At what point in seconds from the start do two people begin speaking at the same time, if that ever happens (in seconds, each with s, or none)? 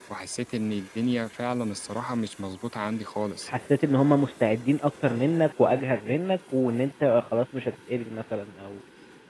none